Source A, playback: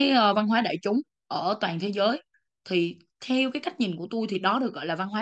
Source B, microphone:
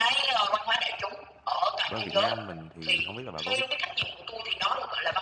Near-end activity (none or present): present